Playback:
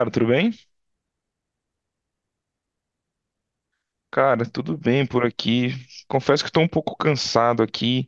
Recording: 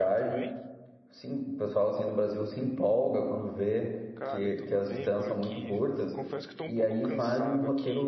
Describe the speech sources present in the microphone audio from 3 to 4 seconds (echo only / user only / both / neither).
user only